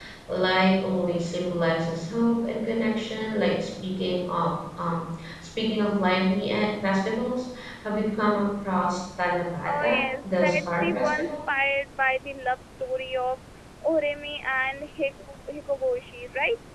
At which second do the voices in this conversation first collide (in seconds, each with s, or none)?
9.7 s